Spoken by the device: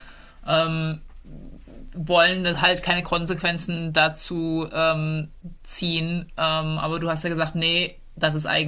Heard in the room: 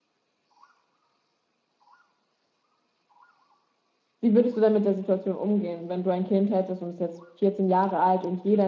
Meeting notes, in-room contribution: present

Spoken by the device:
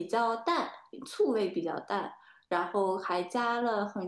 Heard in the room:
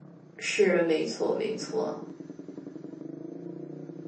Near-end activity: present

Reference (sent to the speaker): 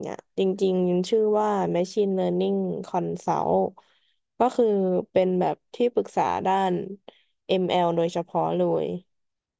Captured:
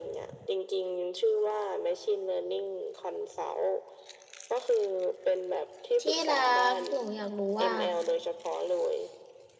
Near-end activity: present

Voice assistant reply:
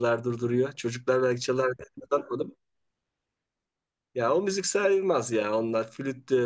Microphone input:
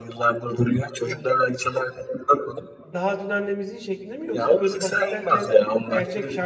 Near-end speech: present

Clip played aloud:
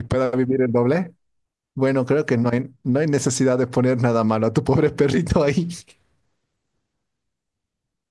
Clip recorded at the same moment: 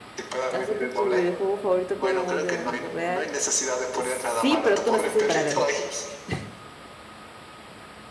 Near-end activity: present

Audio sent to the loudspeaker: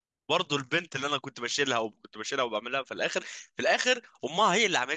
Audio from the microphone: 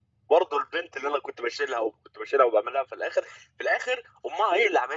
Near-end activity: none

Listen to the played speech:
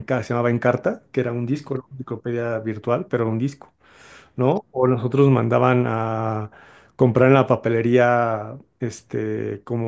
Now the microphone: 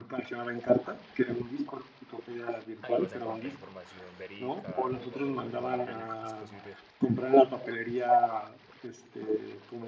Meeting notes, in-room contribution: present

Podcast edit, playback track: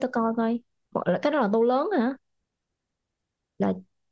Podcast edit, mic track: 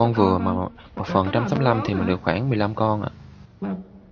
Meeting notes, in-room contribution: present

